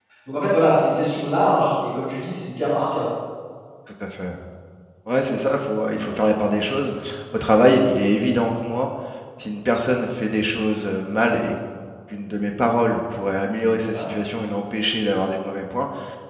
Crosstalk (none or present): none